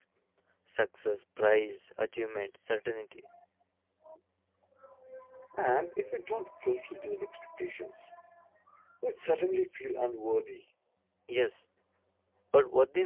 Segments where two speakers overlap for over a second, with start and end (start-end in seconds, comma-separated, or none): none